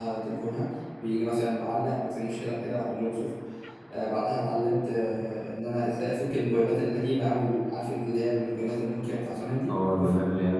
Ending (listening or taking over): taking over